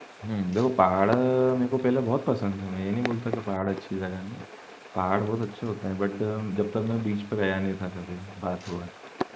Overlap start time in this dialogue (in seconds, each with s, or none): none